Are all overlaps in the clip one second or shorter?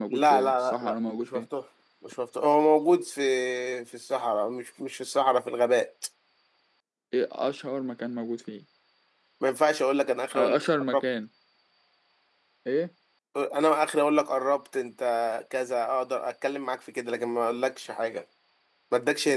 No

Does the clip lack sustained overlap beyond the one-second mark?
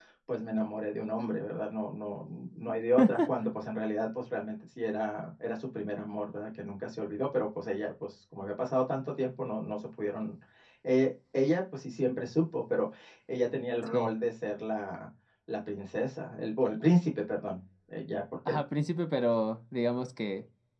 Yes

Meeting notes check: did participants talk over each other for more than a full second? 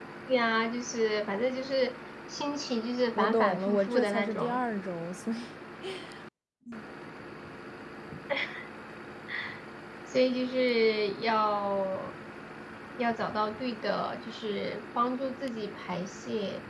Yes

